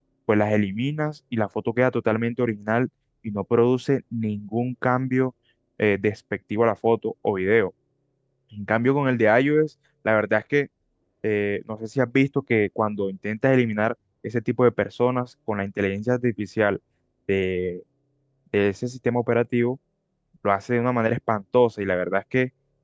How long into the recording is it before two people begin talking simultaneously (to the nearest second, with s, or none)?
none